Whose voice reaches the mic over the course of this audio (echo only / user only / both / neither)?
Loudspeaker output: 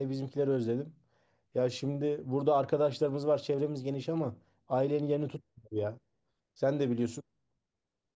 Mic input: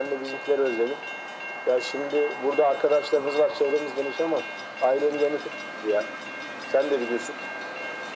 echo only